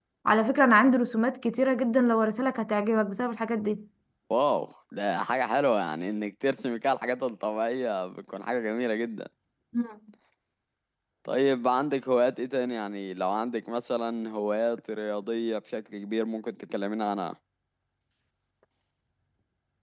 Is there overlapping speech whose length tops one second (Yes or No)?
No